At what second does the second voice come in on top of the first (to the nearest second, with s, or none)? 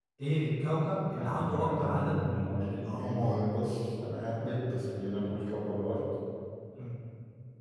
1 s